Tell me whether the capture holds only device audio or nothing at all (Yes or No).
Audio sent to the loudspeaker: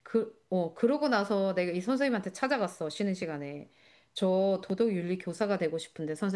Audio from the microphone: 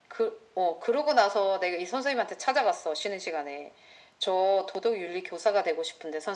Yes